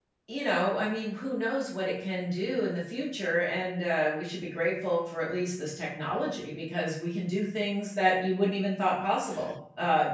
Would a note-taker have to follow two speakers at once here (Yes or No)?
No